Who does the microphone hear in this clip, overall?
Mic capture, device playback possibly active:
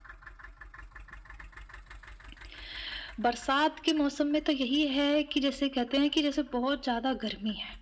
echo only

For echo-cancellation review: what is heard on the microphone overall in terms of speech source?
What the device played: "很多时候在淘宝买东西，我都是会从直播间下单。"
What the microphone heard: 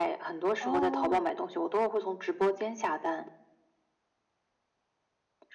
both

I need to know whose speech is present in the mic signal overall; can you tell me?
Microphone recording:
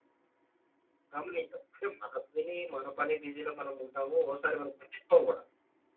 user only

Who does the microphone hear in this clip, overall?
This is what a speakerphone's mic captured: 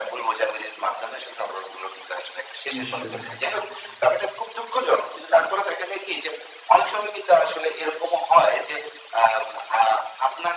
both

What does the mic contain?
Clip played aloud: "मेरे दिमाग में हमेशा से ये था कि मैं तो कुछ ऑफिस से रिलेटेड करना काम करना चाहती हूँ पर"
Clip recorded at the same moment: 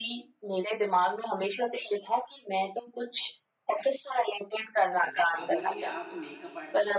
both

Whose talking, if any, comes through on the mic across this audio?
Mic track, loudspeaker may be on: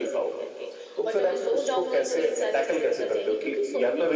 echo only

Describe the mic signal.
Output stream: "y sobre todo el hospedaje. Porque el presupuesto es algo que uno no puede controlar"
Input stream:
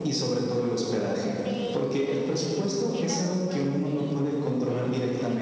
both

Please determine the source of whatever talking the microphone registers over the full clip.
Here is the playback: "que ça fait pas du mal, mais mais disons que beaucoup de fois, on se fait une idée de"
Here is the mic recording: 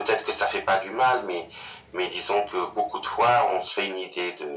echo only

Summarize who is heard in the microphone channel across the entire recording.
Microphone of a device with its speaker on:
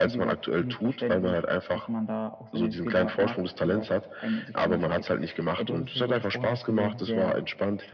echo only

